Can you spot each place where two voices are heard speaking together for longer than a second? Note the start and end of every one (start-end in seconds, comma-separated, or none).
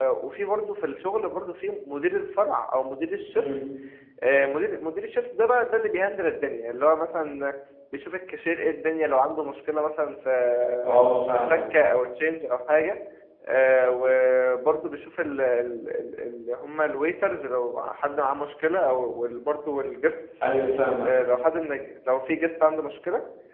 none